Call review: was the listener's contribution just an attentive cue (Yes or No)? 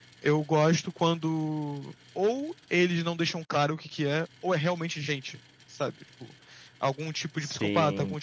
Yes